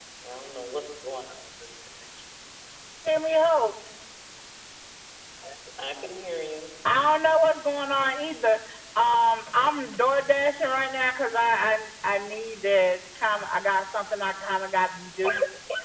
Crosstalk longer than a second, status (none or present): none